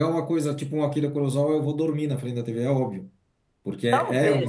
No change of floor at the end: No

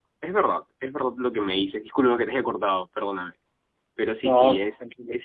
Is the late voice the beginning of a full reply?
No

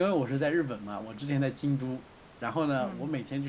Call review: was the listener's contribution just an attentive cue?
Yes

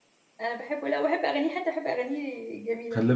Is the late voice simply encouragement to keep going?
No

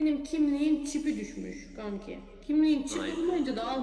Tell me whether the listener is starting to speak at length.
No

